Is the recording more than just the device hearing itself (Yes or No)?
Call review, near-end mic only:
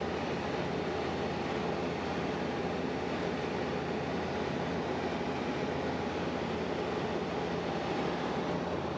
No